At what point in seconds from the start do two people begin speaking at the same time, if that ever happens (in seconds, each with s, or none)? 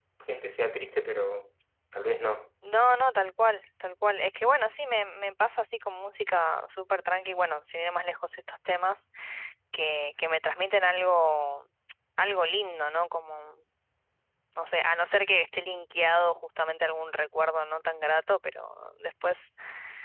none